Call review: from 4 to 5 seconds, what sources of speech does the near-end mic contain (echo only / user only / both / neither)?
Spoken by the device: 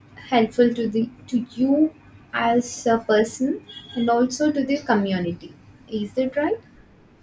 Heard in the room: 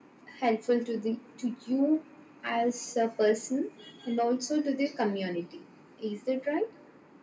echo only